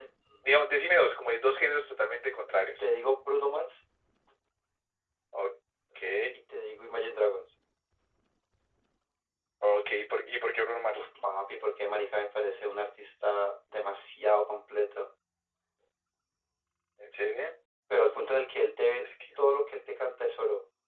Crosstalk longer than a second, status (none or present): none